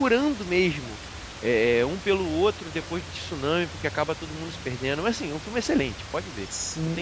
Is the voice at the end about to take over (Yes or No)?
Yes